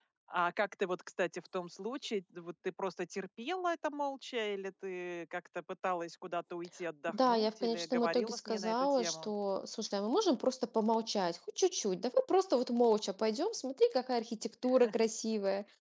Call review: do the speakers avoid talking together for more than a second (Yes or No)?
No